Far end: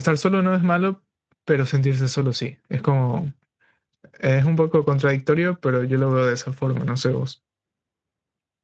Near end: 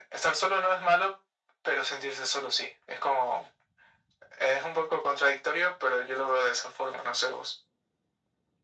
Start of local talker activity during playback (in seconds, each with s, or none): none